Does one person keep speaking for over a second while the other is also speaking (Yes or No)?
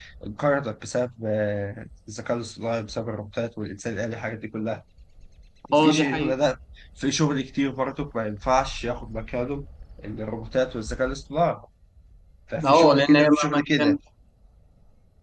Yes